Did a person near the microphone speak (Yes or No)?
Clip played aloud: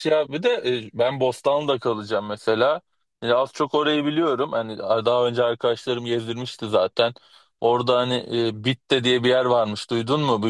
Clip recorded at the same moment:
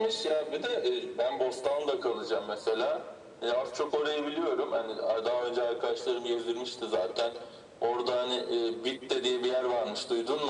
No